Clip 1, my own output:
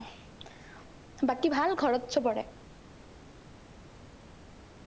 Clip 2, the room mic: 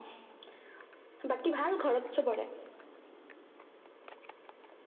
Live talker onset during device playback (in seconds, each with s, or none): none